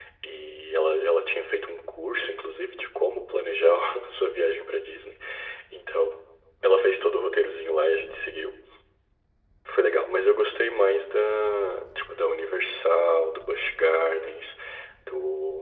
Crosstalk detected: No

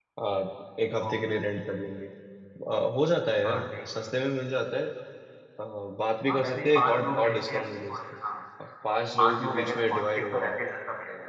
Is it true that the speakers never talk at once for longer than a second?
No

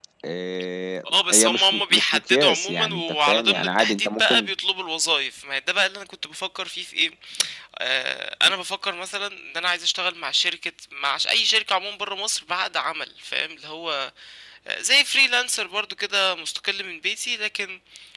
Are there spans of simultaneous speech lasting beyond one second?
Yes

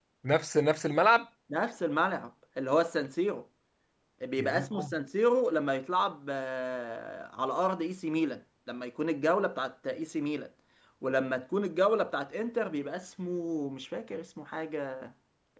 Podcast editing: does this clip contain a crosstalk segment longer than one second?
No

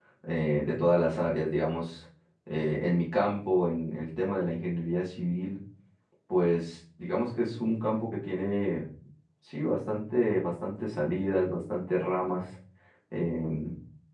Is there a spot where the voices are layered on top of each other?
No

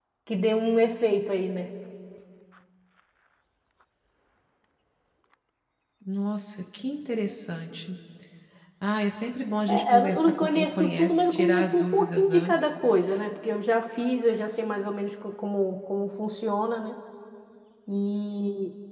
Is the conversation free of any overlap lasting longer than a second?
No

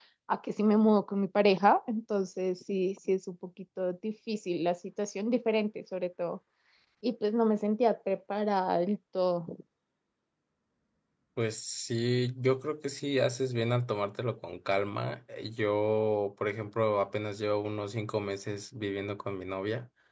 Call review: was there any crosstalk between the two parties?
No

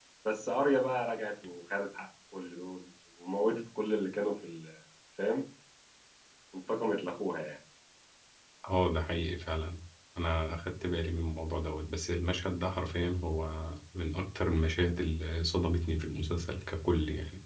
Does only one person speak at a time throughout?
Yes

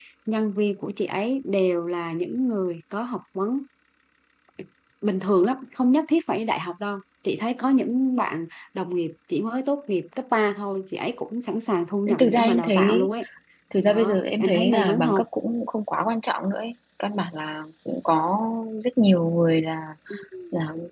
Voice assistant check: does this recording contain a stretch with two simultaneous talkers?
Yes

